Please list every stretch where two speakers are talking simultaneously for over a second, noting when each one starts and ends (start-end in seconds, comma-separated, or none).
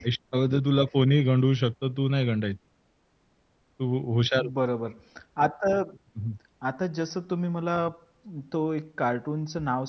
none